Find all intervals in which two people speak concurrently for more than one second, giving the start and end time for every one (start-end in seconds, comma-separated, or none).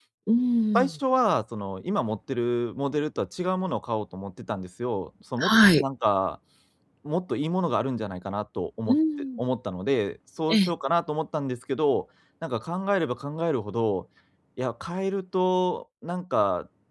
none